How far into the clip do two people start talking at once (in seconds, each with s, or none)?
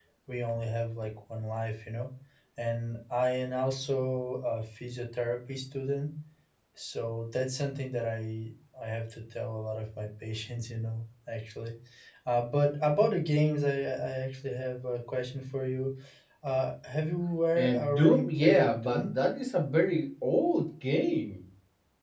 17.6 s